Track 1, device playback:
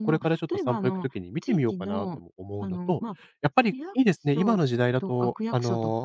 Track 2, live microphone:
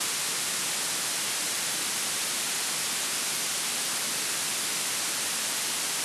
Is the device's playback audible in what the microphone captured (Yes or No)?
No